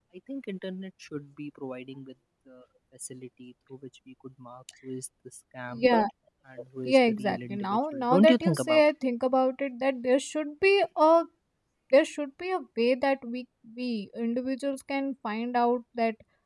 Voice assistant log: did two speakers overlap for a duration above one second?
Yes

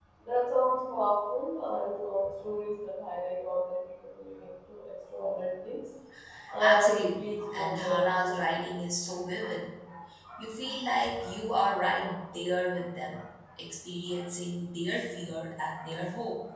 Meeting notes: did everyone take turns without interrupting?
No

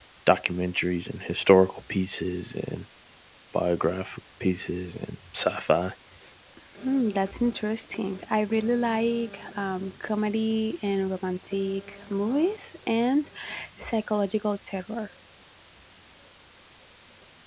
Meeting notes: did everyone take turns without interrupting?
Yes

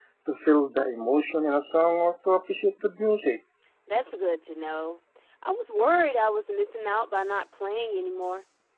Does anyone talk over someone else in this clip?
No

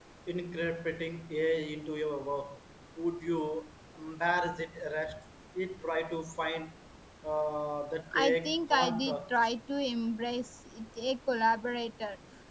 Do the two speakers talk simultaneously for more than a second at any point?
Yes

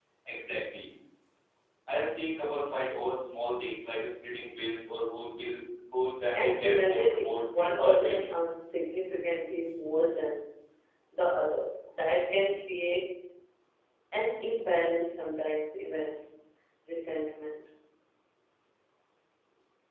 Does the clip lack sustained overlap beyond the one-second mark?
No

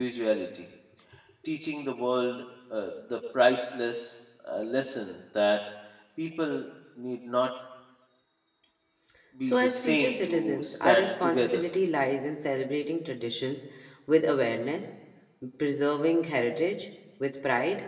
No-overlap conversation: No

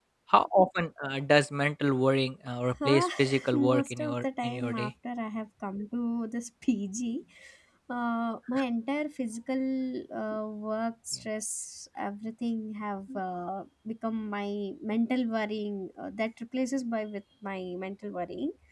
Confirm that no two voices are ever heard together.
No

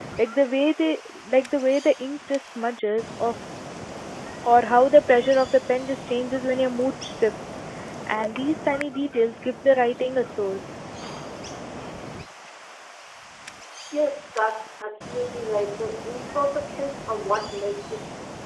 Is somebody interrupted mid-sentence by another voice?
No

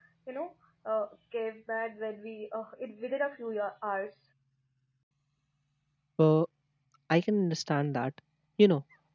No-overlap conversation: Yes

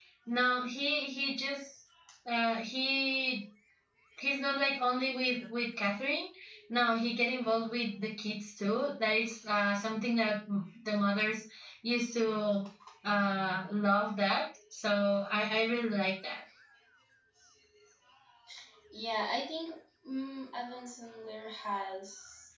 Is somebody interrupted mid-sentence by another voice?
No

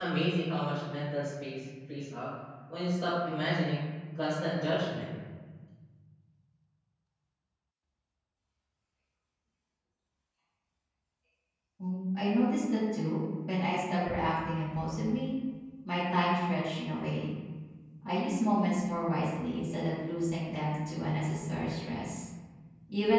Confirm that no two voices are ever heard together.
Yes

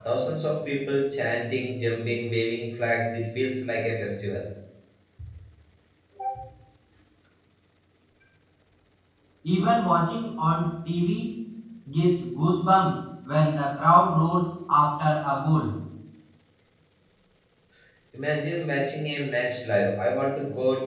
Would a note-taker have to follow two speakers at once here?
No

